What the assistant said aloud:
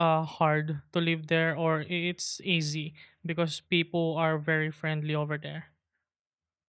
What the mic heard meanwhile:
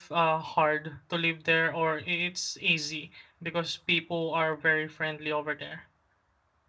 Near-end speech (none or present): none